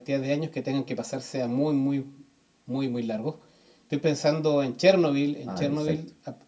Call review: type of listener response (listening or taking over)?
listening